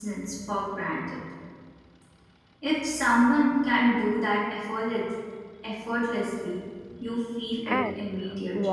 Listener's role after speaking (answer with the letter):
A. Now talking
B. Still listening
A